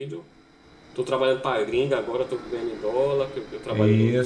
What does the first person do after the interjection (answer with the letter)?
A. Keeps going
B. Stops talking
A